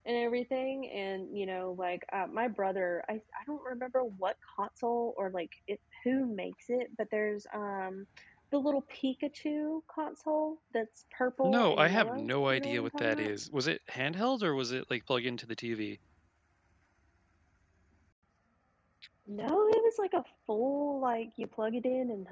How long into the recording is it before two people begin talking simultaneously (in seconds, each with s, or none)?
11.4 s